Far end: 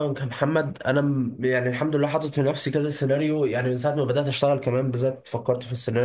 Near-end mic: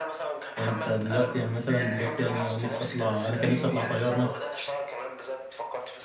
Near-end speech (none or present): present